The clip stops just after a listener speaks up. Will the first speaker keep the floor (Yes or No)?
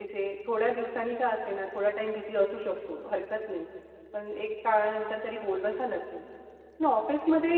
Yes